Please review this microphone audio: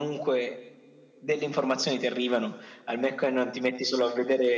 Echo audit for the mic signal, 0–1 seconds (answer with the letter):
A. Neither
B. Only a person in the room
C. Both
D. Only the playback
D